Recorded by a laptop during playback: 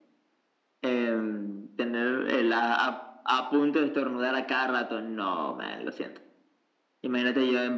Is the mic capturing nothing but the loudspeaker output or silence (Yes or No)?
Yes